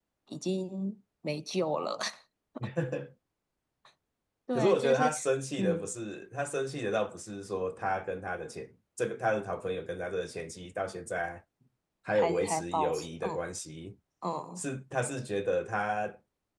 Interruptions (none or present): present